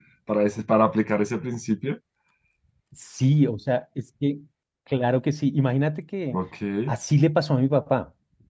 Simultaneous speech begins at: none

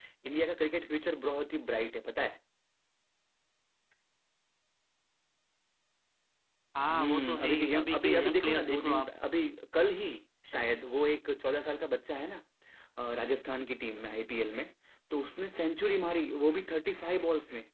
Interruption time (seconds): 7 s

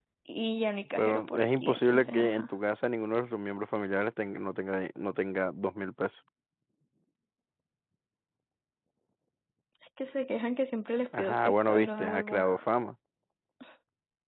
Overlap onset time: 1 s

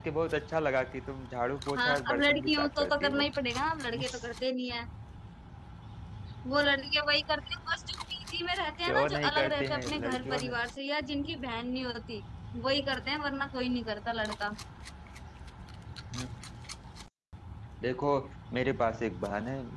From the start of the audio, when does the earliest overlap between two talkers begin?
2 s

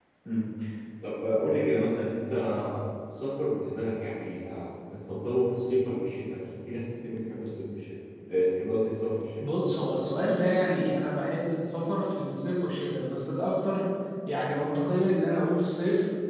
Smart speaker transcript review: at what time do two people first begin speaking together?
none

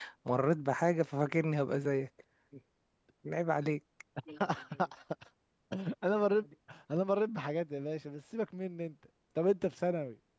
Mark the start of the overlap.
none

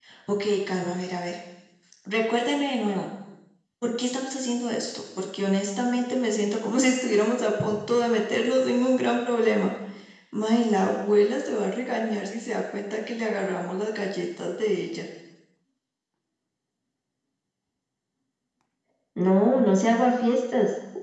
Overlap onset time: none

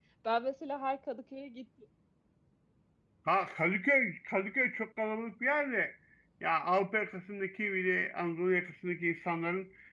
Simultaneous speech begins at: none

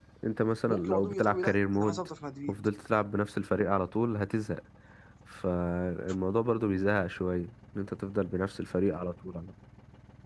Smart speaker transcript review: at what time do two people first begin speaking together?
1 s

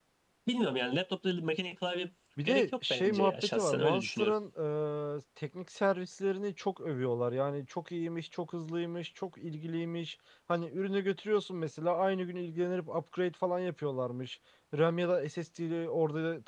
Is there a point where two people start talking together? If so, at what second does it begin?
2 s

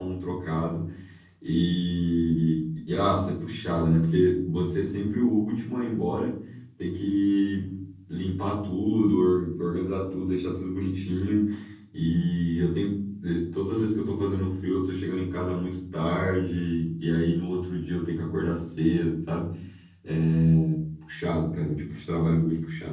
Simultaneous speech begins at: none

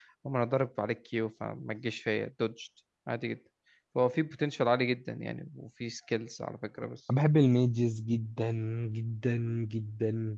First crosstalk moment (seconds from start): none

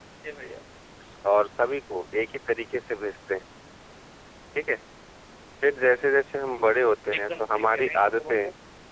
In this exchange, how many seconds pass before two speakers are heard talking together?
7 s

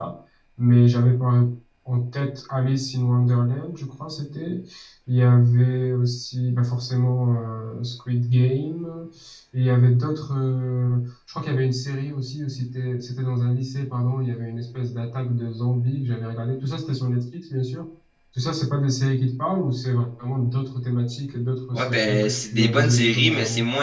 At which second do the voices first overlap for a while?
22 s

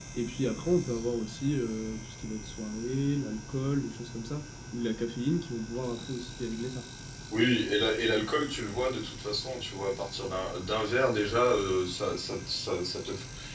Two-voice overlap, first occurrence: none

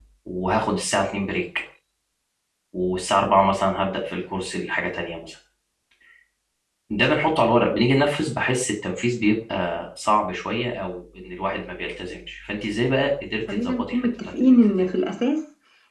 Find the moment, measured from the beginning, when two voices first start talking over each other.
13 s

